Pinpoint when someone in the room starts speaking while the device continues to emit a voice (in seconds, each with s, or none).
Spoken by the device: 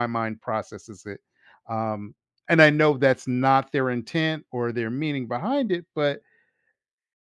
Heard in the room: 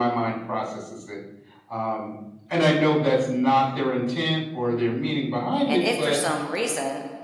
5.7 s